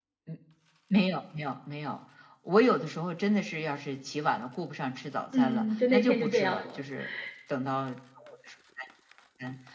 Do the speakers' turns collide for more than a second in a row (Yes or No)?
Yes